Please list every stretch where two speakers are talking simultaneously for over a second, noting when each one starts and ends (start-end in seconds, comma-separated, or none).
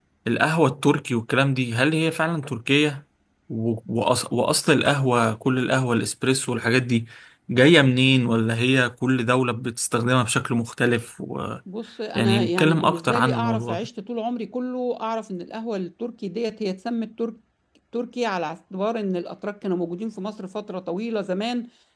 12.2-13.9